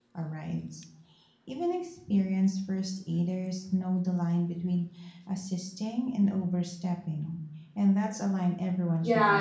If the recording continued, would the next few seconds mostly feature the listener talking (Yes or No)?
Yes